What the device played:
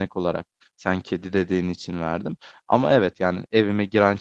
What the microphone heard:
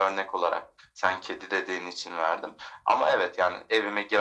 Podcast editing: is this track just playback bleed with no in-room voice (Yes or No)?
Yes